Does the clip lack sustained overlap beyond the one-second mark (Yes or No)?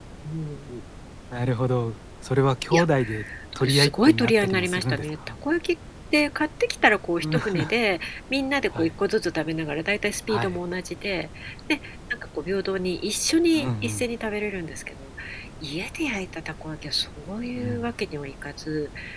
No